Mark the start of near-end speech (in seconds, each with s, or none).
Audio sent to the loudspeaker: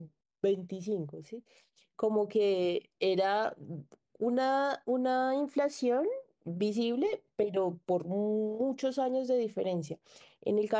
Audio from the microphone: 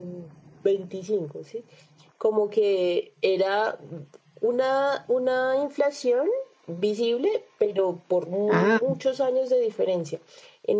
8.5 s